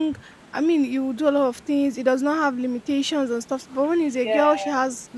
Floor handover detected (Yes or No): No